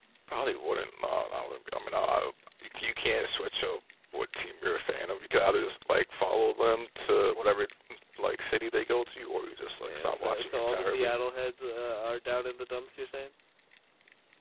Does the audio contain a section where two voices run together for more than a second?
Yes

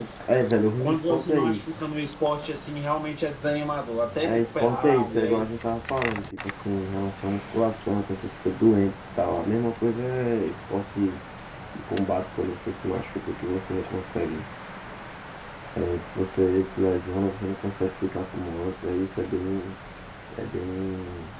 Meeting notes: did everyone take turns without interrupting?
No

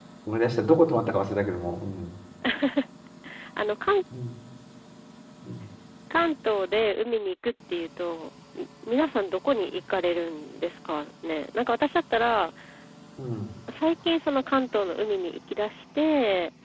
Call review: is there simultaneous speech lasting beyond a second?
No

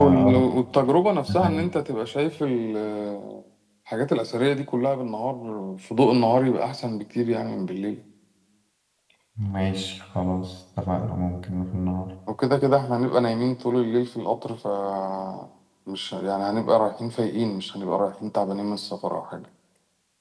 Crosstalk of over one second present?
No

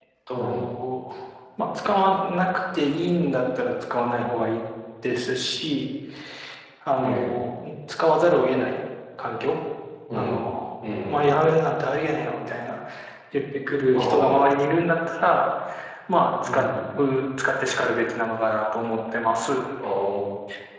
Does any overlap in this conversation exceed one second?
No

